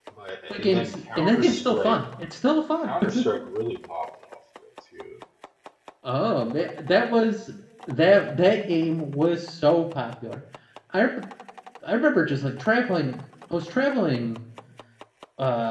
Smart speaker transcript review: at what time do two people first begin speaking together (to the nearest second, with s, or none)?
1 s